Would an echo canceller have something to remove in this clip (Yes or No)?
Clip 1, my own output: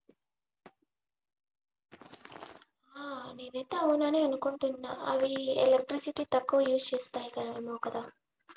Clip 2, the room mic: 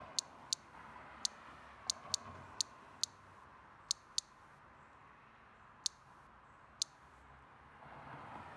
No